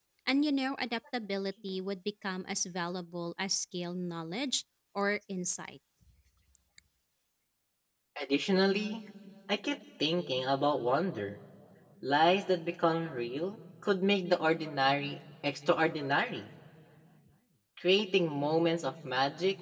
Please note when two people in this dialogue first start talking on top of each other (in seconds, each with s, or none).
none